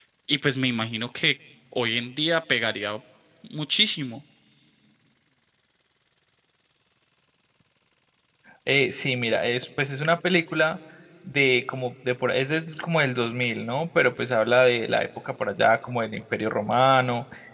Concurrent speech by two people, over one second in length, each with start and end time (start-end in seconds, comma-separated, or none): none